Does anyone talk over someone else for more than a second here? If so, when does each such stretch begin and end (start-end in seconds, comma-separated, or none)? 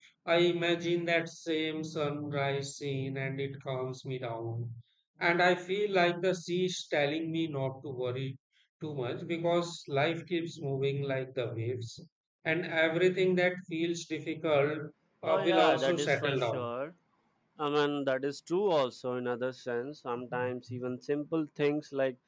15.2-16.7